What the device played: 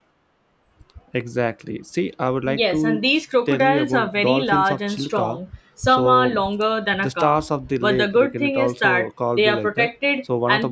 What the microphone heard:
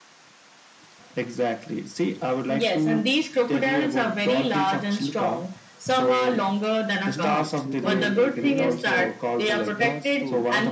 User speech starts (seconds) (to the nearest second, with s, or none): 7 s